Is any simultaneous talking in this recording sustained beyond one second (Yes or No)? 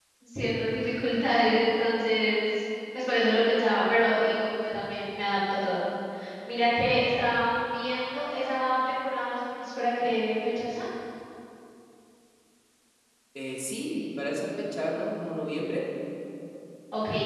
No